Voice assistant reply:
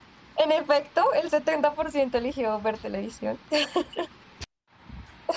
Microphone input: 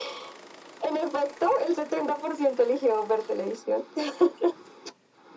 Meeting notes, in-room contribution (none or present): none